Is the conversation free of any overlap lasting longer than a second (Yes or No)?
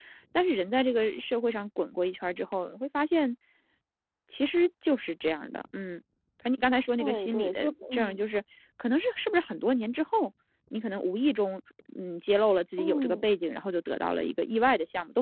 No